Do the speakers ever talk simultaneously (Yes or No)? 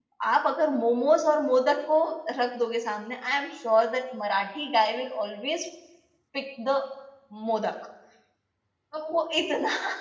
No